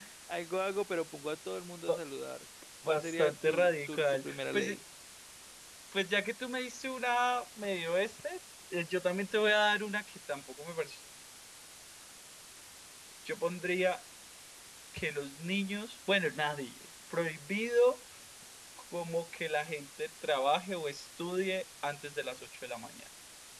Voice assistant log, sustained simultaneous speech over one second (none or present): present